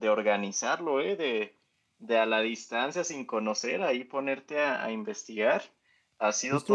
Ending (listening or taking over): taking over